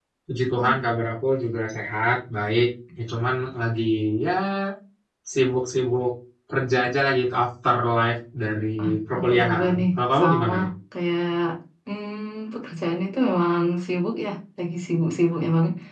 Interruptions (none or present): present